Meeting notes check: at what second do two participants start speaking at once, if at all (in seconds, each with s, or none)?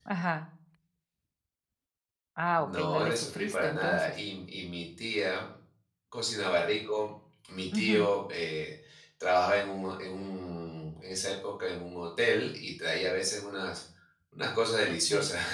2.6 s